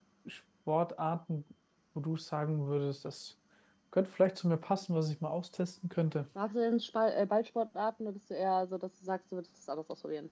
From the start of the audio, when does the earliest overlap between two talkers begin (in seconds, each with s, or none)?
none